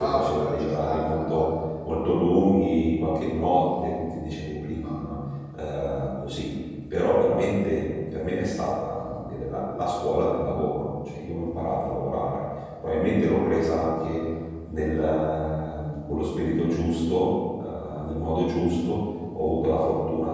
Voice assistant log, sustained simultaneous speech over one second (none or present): present